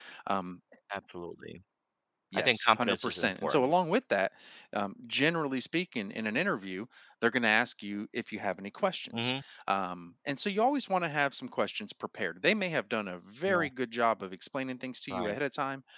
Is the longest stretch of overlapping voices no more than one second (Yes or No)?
No